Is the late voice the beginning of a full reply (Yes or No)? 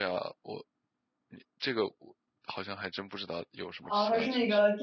Yes